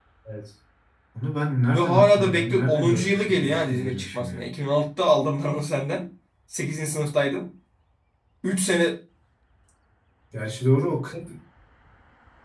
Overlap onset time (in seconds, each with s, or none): 1.7 s